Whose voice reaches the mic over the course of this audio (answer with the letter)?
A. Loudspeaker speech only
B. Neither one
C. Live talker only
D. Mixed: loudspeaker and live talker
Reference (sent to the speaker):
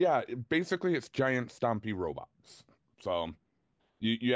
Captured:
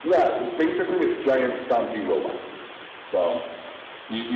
A